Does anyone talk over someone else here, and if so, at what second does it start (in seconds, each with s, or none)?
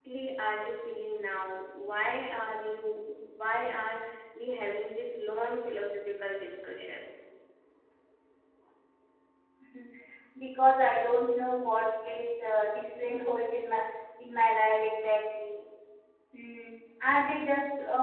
none